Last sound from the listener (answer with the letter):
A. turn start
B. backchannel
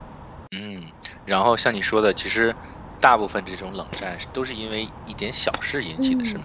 A